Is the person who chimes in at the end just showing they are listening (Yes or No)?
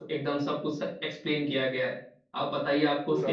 Yes